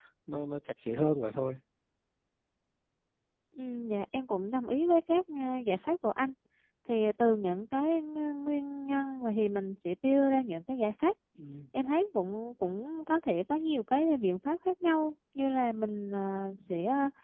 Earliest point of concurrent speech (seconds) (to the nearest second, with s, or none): none